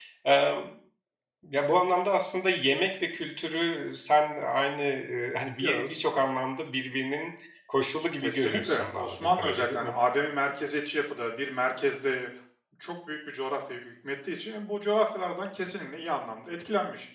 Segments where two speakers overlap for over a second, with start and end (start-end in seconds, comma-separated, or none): 8.2-9.9